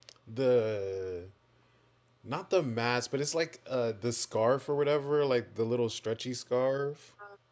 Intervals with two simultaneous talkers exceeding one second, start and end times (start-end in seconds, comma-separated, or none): none